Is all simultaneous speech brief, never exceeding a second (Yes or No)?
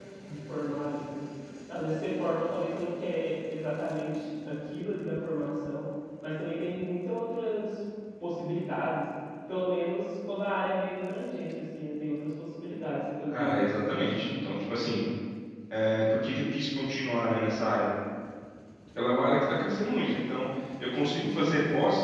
No